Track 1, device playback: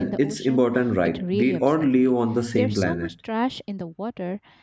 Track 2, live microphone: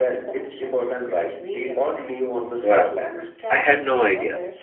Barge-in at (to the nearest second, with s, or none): 3 s